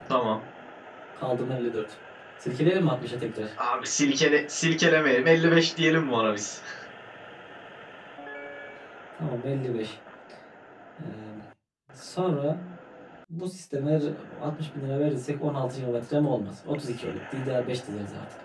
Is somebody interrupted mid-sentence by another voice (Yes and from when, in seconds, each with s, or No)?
No